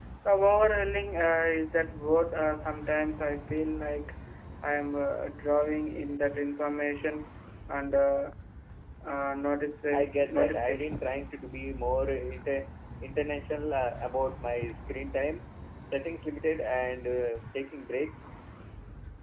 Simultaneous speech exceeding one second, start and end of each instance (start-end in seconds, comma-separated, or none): 9.9-11.2